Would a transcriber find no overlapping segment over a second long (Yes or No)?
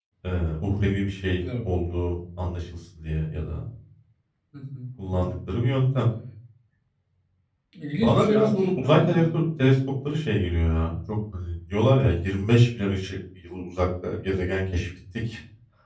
No